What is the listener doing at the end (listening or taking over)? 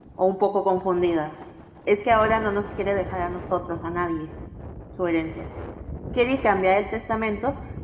listening